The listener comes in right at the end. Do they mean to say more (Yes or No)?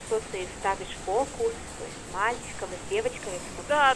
Yes